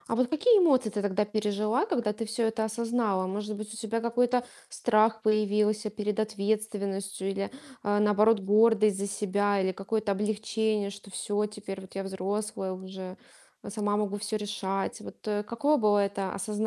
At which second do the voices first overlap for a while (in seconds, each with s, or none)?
none